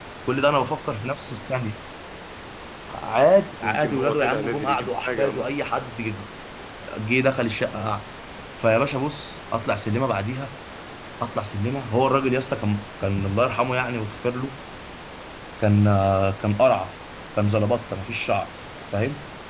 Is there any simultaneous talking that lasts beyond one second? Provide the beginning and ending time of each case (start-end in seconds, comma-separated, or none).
3.6-5.5